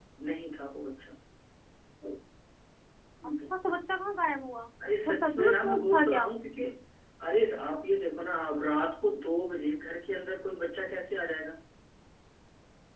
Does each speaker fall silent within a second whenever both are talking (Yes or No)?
No